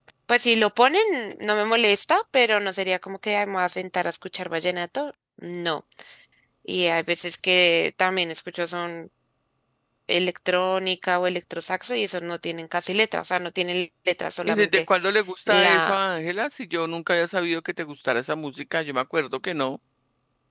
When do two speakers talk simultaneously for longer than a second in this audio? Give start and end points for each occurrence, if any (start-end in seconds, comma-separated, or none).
none